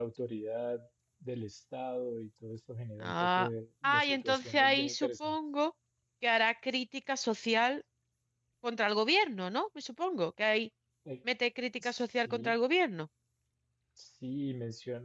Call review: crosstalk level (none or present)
present